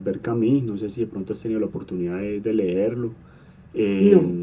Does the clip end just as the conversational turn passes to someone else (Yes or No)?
No